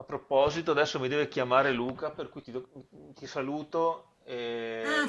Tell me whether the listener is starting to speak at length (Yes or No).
Yes